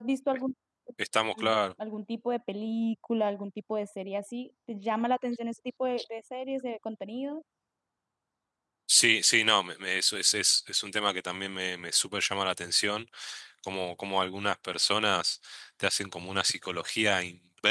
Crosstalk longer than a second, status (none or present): none